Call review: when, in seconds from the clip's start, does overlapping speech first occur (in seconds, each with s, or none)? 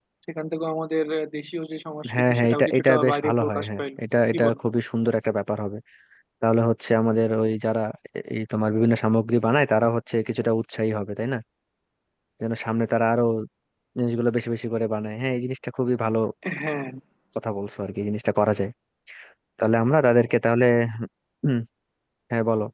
2.0 s